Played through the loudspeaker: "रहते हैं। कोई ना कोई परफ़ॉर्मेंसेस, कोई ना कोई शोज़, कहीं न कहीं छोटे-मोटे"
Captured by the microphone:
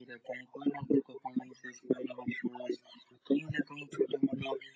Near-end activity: none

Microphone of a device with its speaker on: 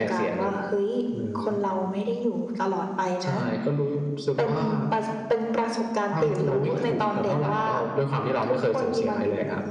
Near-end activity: none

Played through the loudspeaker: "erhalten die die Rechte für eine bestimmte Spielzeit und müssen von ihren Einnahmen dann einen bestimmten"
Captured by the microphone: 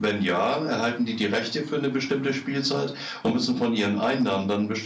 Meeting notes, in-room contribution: none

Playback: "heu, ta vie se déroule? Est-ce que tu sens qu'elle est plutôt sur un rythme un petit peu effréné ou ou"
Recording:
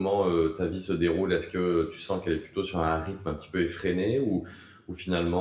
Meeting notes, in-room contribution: none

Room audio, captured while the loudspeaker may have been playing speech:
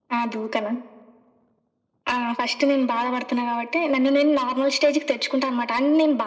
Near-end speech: none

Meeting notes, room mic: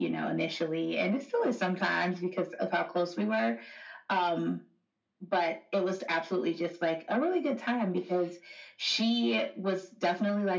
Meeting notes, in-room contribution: none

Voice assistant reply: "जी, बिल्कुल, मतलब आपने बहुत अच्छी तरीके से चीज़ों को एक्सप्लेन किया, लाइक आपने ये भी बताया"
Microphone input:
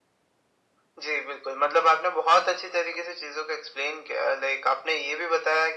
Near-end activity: none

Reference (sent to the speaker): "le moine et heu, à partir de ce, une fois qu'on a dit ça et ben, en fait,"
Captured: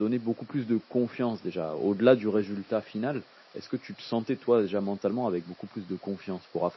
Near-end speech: present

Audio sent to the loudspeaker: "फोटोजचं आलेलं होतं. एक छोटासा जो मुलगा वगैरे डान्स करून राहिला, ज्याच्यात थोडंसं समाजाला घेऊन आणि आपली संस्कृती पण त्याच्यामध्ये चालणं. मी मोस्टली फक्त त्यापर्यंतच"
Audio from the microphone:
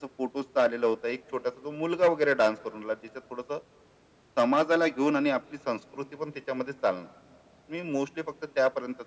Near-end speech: none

